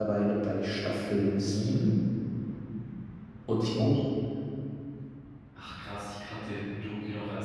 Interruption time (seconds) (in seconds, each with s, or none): none